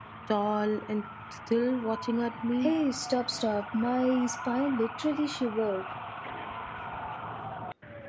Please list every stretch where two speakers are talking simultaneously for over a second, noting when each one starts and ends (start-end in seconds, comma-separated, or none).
none